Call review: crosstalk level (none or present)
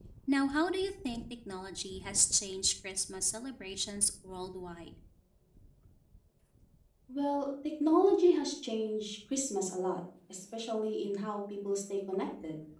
none